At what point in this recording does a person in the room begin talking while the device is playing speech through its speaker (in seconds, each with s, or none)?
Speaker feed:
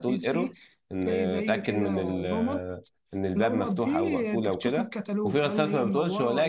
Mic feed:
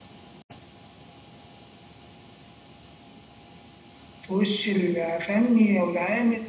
4.2 s